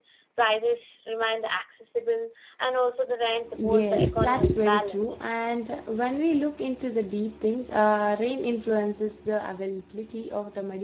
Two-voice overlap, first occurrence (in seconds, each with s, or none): 3.5 s